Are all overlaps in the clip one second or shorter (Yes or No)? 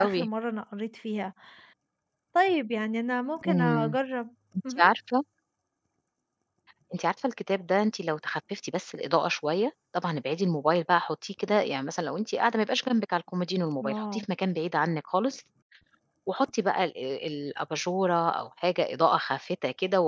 Yes